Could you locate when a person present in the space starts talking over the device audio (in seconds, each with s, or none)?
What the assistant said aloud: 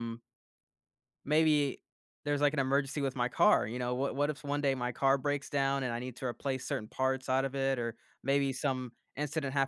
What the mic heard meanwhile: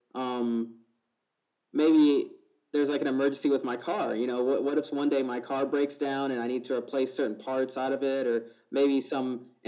none